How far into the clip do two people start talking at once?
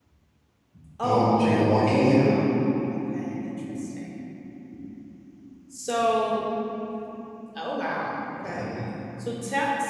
1.0 s

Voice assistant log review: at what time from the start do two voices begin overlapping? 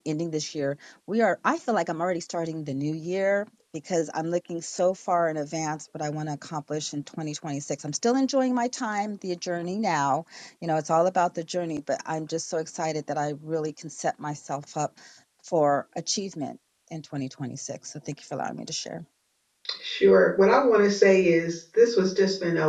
none

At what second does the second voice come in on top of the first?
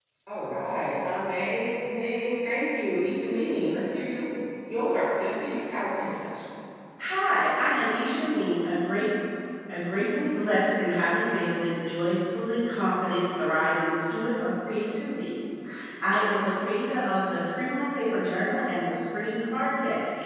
none

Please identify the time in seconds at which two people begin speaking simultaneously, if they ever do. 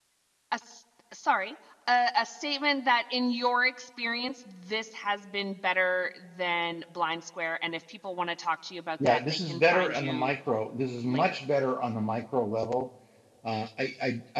9.0 s

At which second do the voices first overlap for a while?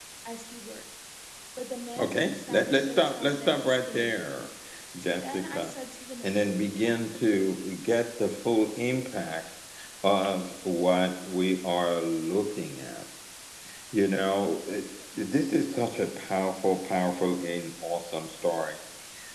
2.0 s

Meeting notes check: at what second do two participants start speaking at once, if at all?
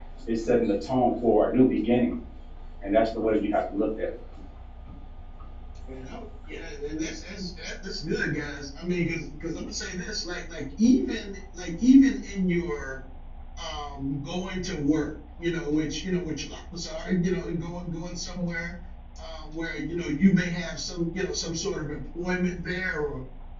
none

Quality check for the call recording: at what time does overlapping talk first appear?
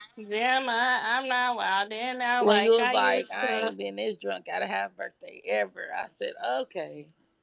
2.4 s

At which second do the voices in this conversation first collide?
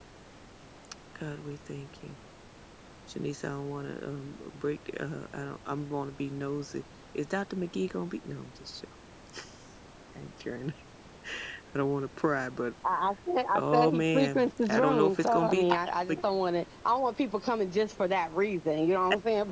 13.6 s

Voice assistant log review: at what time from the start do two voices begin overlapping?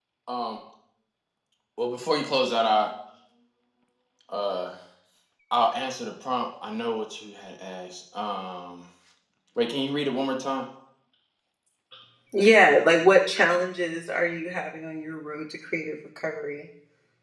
none

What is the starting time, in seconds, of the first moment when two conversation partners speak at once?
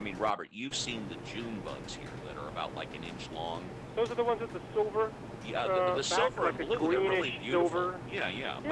5.6 s

